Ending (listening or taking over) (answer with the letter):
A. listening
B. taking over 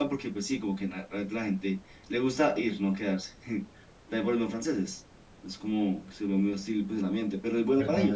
B